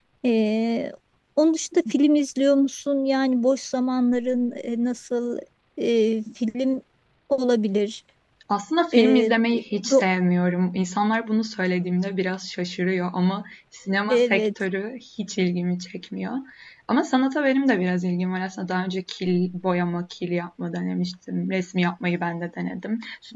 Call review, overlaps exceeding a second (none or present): none